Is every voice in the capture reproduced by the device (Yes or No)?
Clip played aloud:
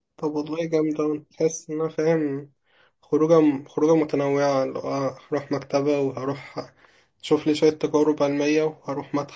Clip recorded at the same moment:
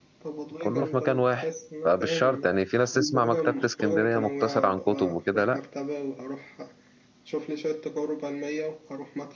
No